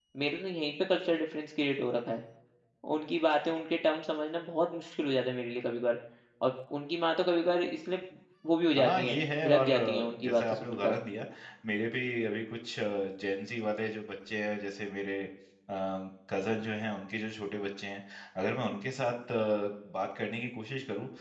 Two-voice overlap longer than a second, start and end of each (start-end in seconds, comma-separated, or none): 8.8-10.9